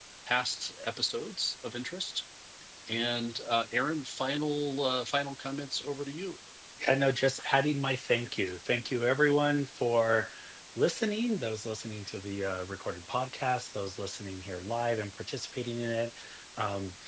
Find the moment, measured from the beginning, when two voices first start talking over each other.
none

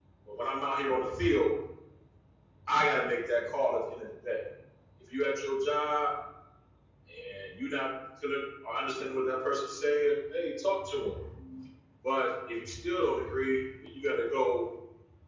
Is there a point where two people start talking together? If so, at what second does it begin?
none

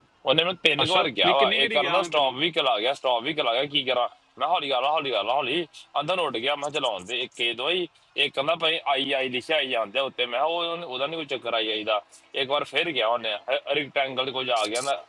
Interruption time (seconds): 0.8 s

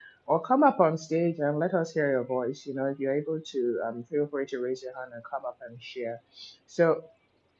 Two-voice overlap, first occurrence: none

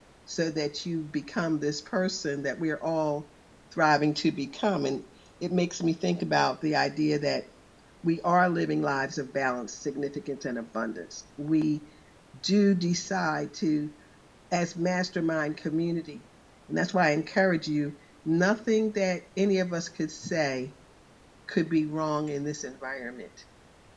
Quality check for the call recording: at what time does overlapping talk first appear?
none

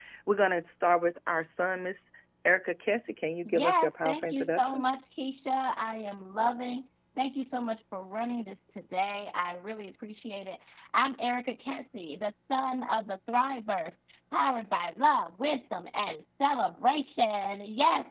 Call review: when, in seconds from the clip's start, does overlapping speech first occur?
3.5 s

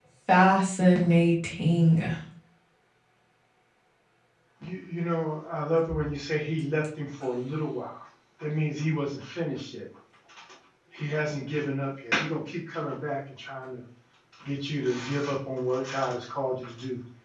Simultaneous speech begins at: none

